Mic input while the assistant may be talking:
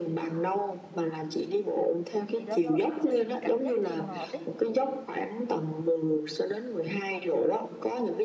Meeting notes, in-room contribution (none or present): present